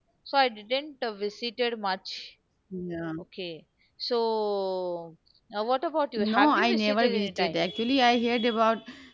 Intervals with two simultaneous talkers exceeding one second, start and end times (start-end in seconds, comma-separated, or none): 6.2-7.5